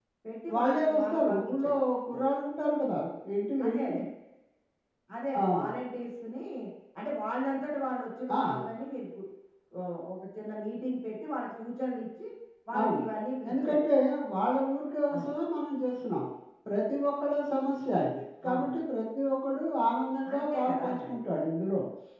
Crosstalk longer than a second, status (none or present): present